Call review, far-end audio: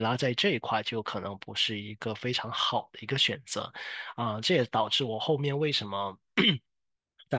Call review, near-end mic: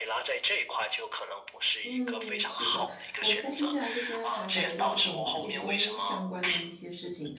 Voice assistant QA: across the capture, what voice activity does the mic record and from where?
both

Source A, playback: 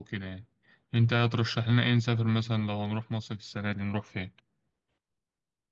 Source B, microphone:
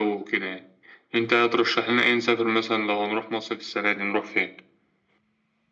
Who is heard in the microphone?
echo only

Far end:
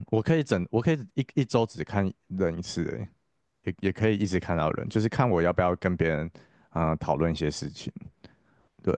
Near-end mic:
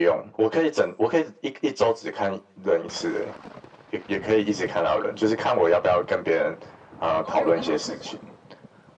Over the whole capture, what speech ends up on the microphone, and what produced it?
both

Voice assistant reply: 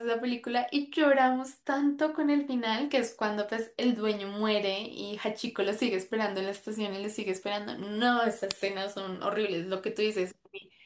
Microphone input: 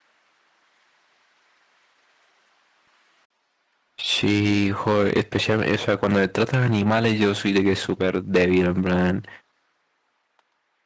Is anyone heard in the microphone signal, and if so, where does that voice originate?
user only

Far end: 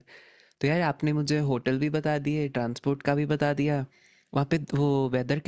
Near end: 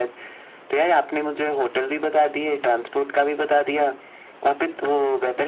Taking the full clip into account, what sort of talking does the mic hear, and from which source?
echo only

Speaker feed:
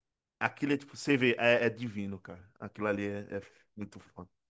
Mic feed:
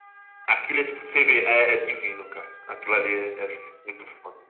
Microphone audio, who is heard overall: echo only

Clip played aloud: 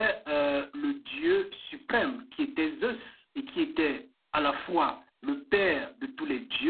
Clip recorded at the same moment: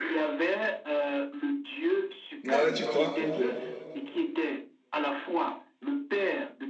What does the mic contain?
both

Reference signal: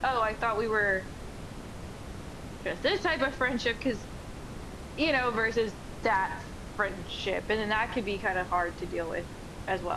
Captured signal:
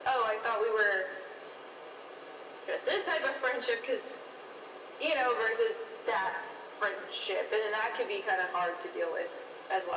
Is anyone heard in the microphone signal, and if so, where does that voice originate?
echo only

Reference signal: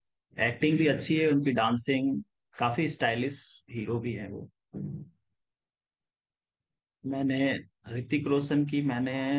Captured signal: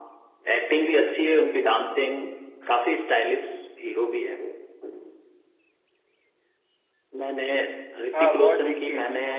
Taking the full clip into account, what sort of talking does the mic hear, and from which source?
both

